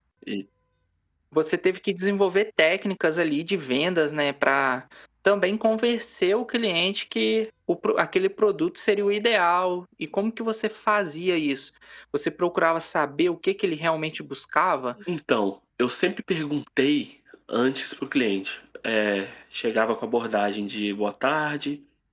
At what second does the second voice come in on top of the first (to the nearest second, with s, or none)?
none